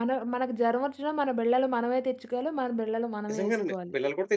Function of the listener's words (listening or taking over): taking over